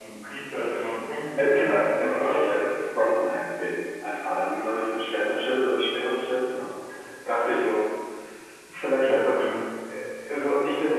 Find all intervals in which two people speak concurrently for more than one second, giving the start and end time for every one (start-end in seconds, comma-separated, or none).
1.4-2.6